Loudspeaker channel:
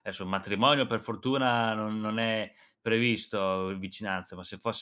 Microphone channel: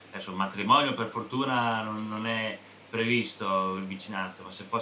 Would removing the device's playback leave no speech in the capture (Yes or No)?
Yes